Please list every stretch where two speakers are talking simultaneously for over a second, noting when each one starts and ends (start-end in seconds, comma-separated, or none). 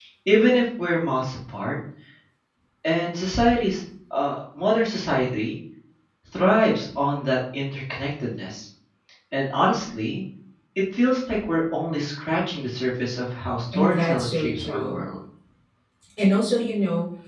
13.7-15.0